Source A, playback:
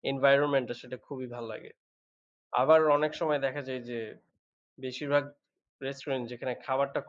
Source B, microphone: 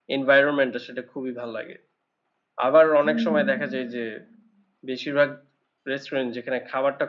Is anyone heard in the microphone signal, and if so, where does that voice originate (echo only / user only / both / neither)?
both